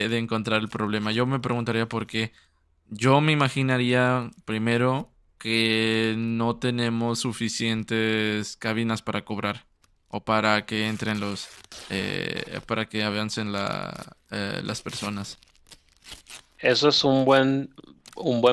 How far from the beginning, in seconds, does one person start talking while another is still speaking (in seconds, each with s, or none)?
none